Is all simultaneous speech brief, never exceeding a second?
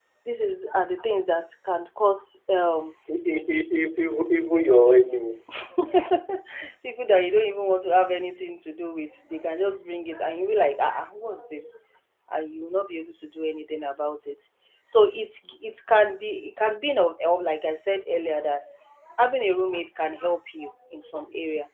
Yes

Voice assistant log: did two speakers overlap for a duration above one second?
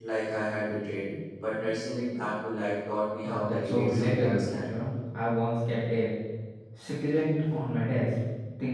Yes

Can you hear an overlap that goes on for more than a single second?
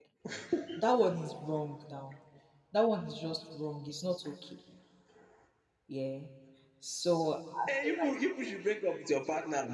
No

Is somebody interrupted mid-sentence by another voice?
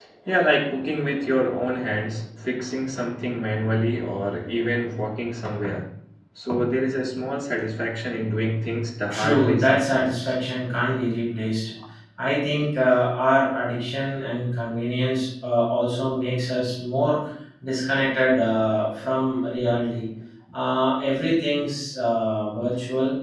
Yes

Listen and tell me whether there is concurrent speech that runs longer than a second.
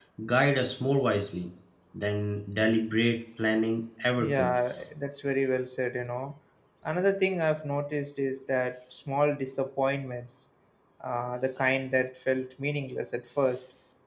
No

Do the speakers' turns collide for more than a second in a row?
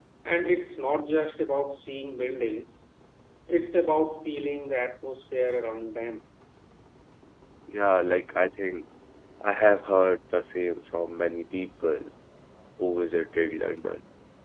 No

